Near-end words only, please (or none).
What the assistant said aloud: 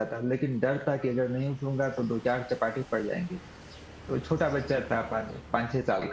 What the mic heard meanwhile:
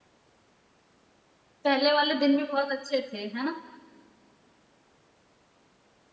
पहले वाले दिन भी बहुत अच्छे थे है ना